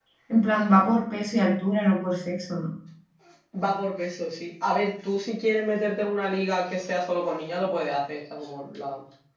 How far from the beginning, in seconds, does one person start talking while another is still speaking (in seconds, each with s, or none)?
none